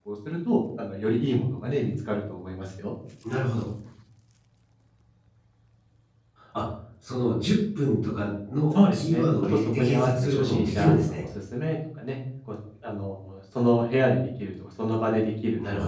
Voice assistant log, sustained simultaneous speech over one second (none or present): present